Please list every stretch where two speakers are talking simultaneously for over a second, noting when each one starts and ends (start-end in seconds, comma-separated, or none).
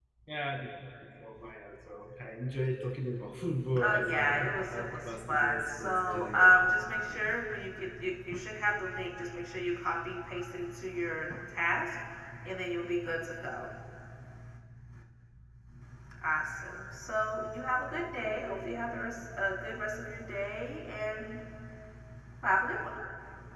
3.8-6.6